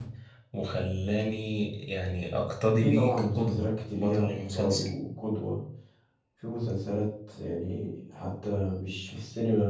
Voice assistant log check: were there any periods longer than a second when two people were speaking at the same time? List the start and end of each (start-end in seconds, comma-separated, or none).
2.8-4.9